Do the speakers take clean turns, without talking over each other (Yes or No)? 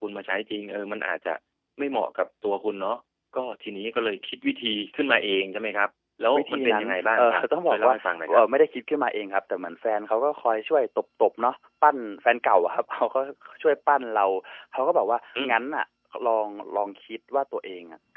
No